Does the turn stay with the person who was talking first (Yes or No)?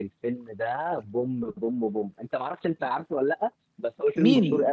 No